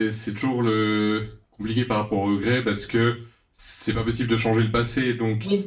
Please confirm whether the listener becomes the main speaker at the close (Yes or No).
No